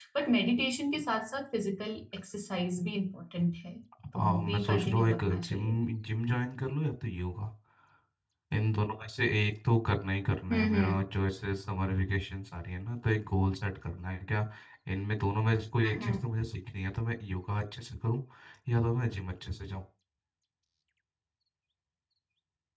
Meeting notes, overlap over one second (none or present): present